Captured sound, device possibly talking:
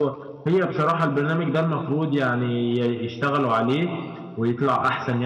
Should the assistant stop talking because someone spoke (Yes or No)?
Yes